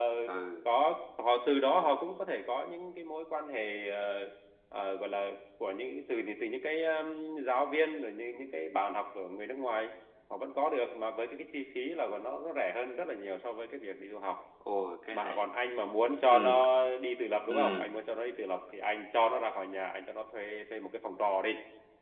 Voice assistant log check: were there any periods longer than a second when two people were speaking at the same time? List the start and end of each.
none

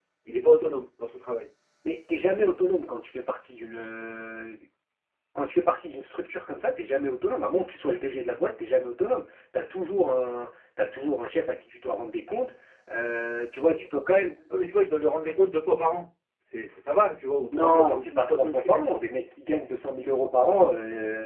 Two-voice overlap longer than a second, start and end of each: 17.5-19.0

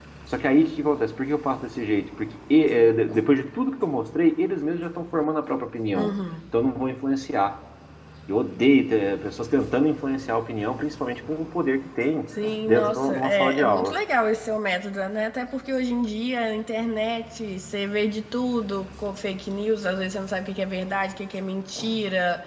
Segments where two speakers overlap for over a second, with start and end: 12.7-14.0

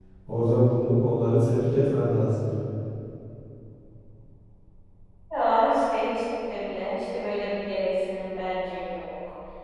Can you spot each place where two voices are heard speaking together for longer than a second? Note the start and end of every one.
none

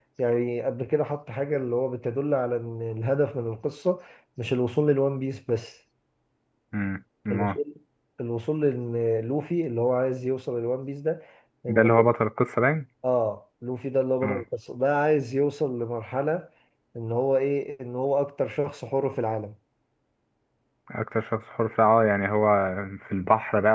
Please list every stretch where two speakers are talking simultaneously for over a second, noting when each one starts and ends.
none

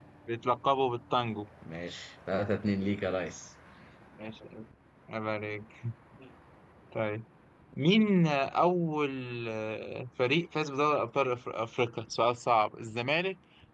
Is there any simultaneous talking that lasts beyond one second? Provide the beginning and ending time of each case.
none

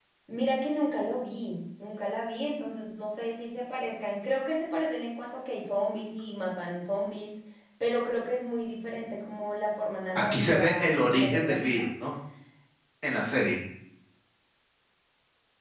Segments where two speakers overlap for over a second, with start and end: 10.2-11.8

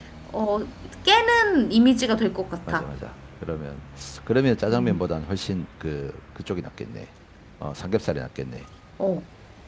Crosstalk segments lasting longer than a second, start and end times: none

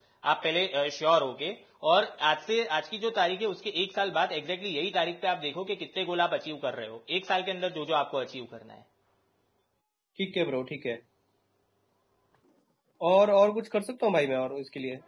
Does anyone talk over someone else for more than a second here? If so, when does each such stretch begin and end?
none

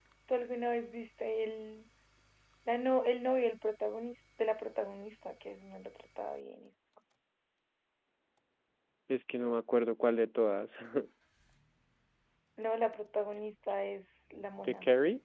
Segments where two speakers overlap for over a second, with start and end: none

